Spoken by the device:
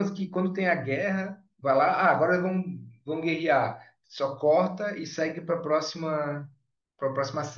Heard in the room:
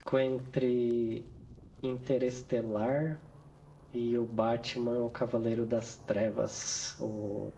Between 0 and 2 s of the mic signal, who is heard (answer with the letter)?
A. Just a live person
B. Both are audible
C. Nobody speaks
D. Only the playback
A